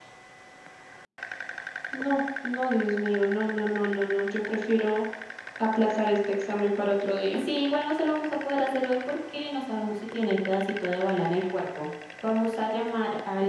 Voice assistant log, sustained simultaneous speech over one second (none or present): none